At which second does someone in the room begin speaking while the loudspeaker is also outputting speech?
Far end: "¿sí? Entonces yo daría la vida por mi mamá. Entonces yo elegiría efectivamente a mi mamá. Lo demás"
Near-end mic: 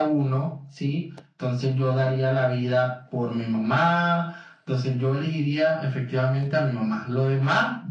none

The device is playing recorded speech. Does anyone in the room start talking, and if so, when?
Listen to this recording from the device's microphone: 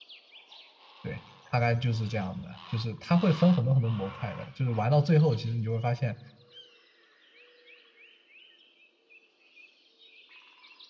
1.0 s

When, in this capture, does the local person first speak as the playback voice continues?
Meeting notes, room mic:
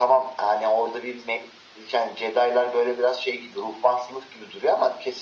none

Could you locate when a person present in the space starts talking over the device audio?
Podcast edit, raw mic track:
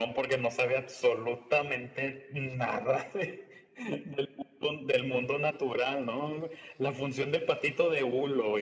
none

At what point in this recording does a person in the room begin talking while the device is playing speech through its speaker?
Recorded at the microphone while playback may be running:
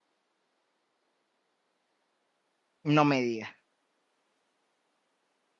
2.8 s

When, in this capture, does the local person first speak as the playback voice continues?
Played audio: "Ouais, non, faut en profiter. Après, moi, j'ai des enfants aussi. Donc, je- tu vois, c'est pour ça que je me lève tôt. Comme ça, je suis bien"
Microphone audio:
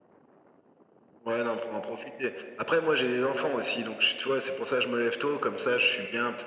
none

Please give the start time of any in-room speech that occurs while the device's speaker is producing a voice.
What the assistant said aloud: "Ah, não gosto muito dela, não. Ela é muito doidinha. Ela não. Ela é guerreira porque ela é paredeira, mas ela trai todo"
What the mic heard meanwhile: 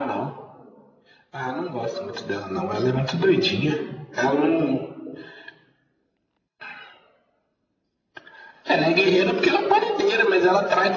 none

